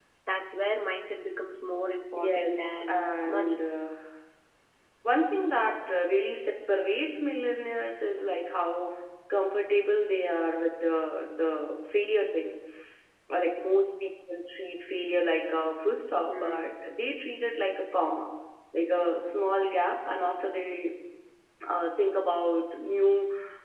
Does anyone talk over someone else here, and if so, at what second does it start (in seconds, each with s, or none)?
2.2 s